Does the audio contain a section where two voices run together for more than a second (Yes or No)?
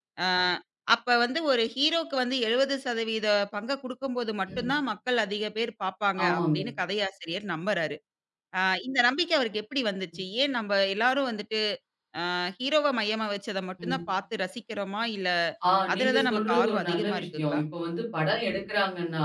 Yes